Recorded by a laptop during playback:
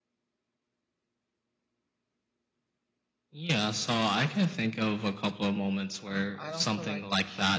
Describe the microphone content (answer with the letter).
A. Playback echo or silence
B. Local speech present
B